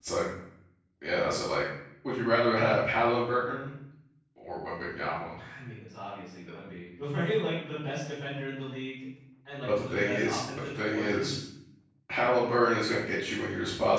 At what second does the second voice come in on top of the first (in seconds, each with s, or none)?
9.6 s